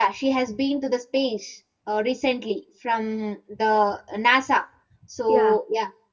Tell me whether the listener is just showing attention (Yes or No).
Yes